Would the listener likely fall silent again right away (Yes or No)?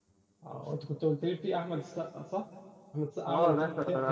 No